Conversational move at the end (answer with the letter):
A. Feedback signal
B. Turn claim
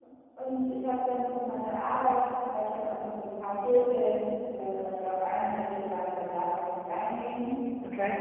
A